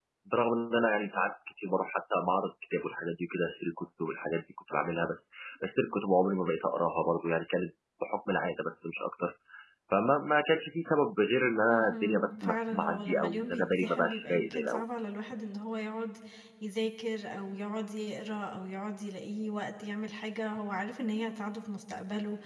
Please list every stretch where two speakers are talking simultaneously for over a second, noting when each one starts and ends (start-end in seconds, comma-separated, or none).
11.7-14.8